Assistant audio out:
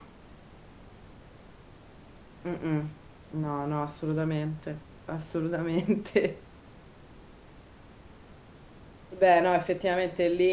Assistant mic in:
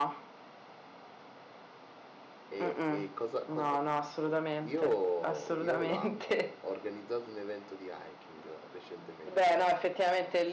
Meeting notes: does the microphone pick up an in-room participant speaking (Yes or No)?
Yes